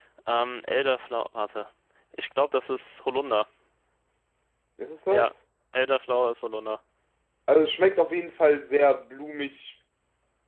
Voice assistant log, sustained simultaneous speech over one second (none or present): none